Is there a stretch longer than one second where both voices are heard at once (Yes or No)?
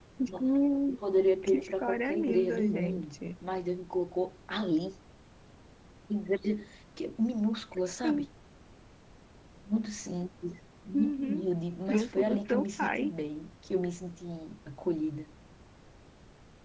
Yes